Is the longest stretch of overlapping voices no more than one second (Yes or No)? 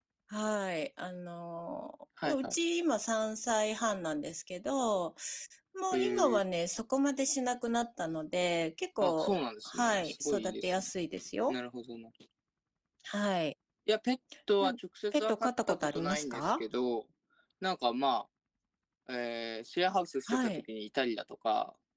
No